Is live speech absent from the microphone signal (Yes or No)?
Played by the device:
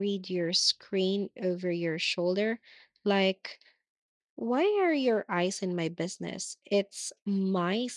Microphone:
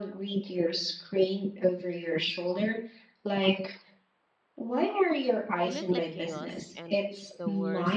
No